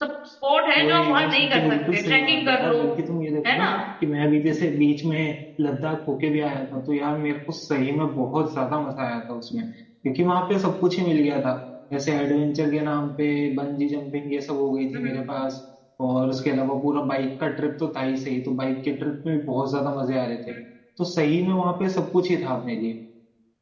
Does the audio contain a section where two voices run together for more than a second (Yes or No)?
Yes